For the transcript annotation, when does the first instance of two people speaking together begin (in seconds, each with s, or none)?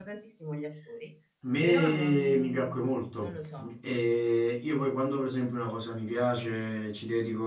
1.6 s